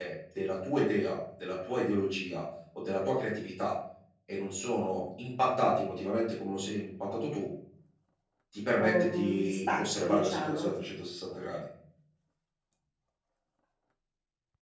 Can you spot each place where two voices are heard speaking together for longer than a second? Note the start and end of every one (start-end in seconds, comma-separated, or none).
8.8-10.7